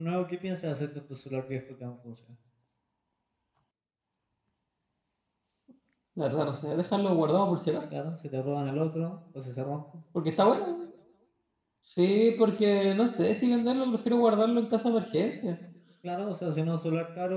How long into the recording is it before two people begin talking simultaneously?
none

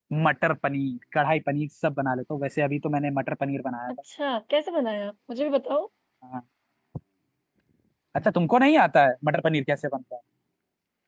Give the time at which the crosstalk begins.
none

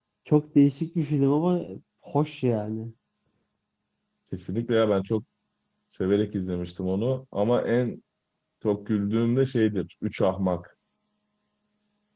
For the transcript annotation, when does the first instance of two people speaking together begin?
none

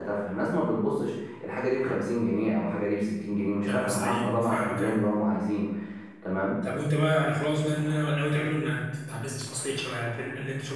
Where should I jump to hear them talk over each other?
4 s

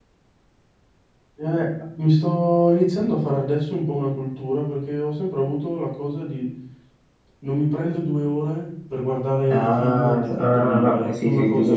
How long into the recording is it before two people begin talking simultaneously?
9 s

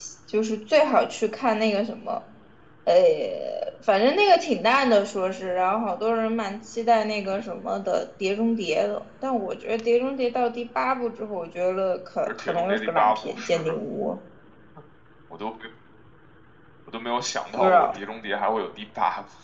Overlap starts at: 12 s

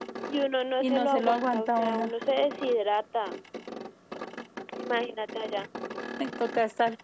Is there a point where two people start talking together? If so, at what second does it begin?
1 s

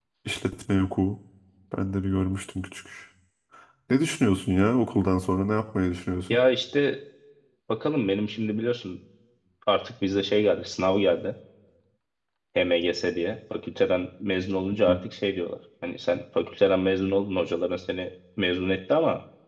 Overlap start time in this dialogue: none

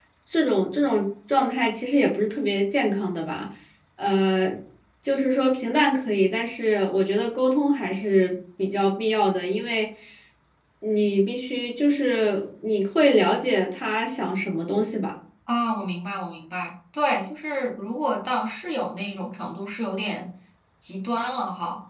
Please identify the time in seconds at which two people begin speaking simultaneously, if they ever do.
none

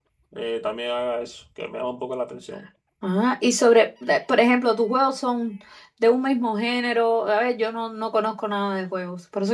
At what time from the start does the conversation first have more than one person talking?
none

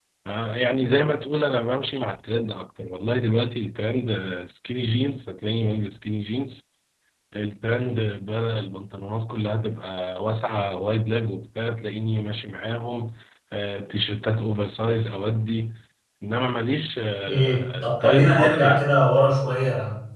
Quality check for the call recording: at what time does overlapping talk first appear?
17 s

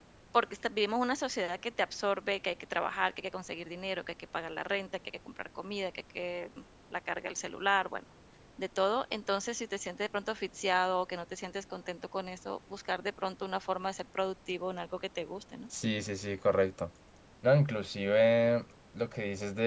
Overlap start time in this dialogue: none

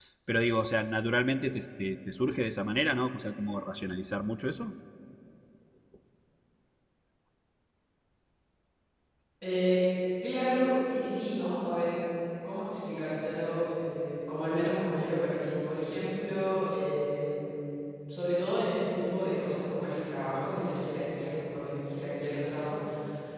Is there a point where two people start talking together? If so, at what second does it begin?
none

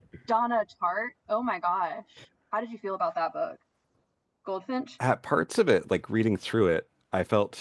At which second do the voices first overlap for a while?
none

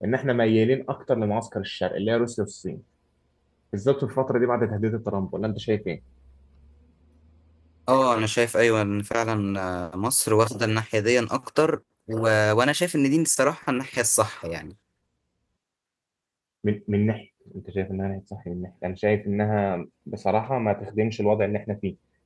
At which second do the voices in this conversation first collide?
none

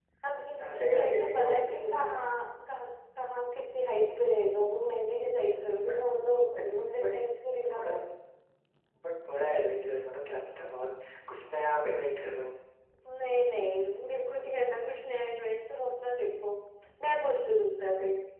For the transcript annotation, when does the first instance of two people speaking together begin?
1 s

